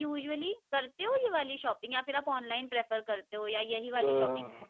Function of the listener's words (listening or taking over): taking over